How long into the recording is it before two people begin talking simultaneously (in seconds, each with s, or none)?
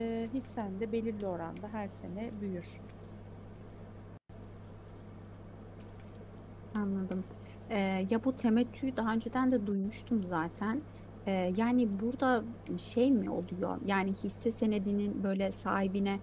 none